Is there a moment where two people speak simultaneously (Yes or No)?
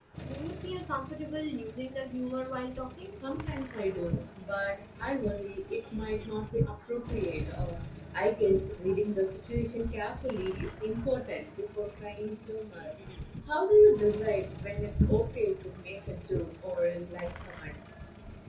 No